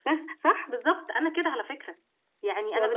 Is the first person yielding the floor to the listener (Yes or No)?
No